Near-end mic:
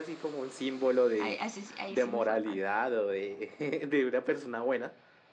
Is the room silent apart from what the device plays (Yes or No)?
No